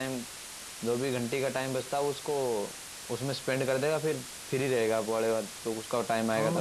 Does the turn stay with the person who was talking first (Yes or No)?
No